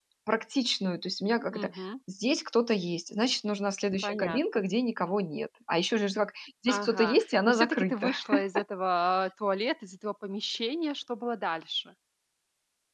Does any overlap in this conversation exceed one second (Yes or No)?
Yes